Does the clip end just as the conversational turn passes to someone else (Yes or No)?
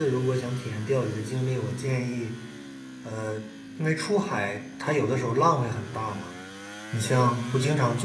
No